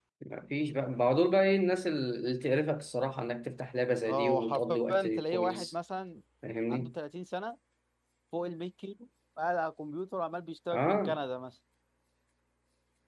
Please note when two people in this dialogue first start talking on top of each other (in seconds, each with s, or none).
4.1 s